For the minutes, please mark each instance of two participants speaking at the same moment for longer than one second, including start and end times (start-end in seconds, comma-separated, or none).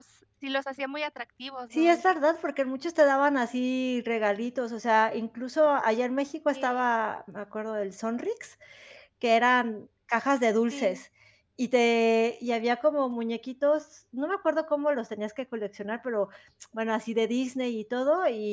none